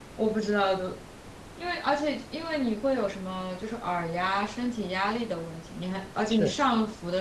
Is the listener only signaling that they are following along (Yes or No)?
Yes